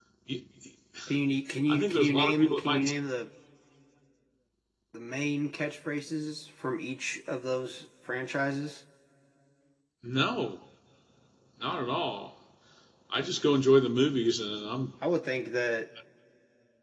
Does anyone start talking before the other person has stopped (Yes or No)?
Yes